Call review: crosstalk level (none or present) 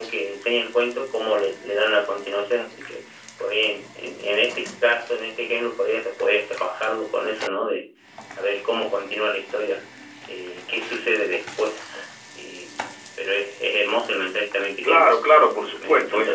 present